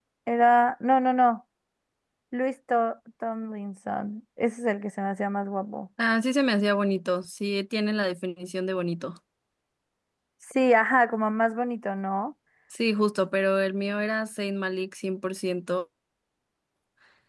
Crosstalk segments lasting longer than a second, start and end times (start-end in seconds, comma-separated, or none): none